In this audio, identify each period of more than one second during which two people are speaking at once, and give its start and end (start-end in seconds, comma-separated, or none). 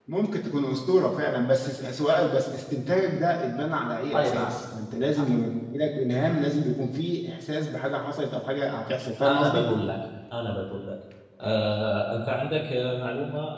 none